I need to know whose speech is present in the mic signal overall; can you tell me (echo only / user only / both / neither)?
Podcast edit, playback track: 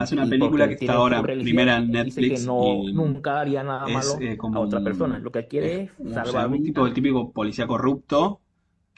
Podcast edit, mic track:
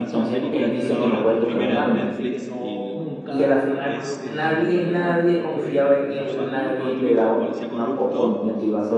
both